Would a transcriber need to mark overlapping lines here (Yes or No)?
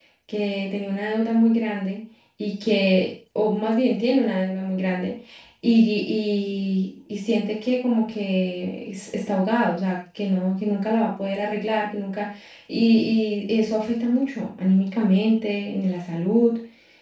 No